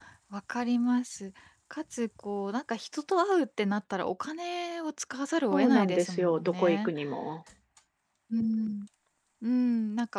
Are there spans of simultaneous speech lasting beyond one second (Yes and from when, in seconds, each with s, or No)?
Yes, from 5.5 s